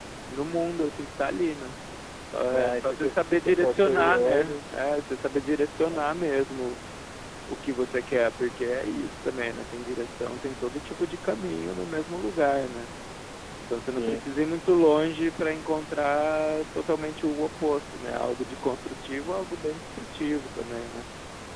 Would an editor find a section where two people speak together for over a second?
Yes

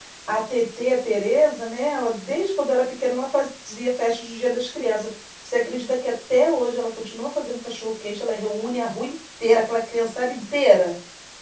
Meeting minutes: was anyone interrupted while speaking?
No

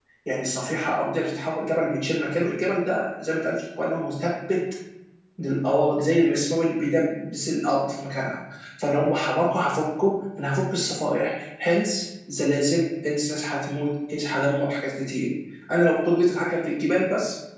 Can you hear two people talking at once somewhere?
No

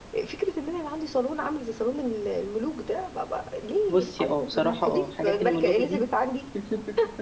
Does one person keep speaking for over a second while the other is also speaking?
Yes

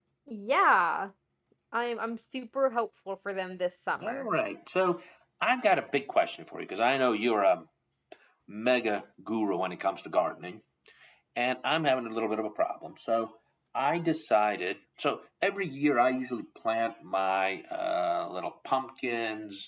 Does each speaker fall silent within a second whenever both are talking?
Yes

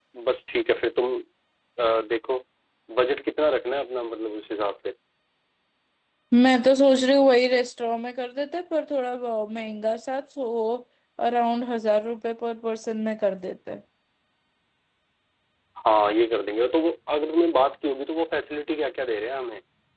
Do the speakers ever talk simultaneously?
No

